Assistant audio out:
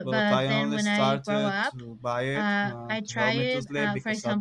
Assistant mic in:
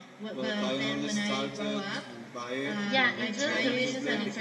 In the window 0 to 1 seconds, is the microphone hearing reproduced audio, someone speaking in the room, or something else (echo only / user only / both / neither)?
echo only